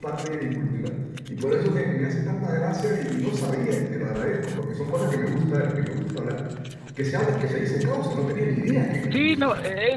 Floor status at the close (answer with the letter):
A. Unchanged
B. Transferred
B